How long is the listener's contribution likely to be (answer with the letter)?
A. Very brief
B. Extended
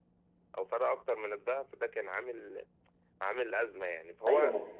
B